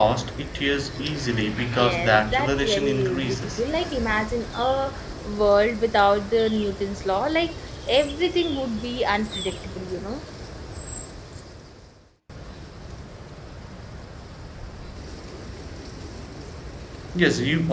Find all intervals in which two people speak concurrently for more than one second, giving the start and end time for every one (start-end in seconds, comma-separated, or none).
1.8-3.6